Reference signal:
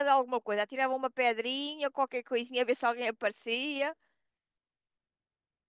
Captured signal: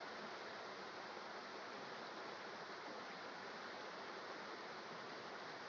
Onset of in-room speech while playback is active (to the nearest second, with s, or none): none